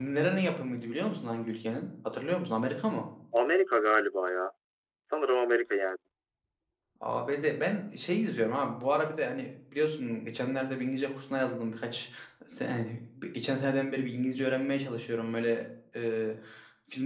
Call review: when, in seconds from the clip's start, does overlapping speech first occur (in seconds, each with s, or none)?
none